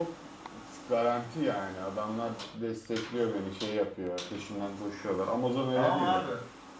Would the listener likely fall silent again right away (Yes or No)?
No